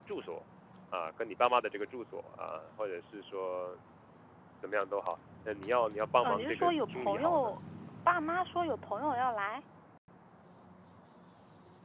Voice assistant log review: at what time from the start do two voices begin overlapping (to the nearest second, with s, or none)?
6 s